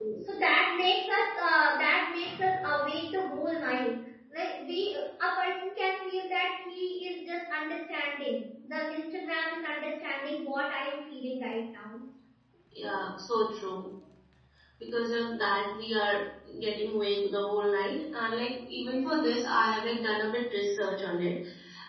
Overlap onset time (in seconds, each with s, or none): none